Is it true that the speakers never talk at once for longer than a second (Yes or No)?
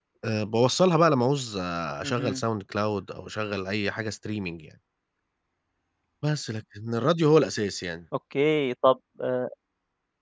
Yes